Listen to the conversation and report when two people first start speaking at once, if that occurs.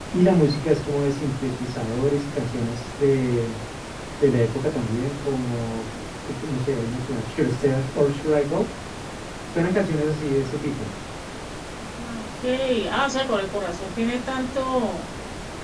none

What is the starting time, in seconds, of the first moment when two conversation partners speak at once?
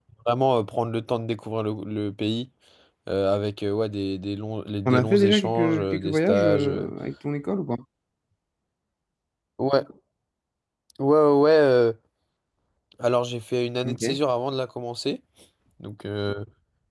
4.8 s

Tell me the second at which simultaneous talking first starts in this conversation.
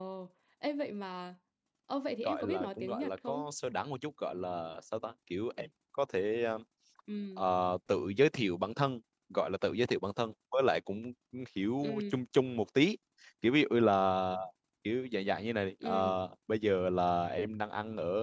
2.2 s

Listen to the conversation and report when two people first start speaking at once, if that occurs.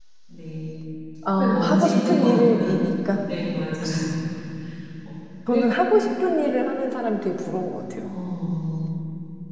1.4 s

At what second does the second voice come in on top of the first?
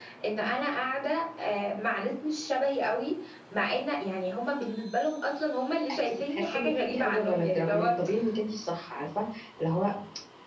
5.9 s

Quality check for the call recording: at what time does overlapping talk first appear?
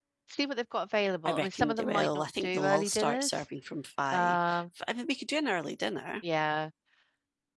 1.2 s

